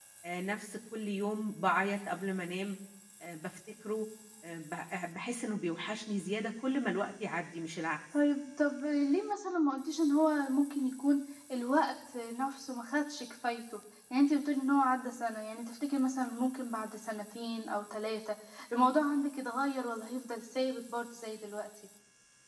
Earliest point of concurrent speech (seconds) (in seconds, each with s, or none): none